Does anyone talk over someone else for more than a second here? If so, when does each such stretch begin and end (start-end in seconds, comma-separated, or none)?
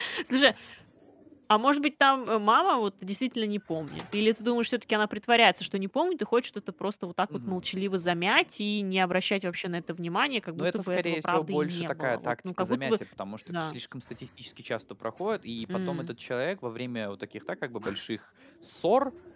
10.6-13.0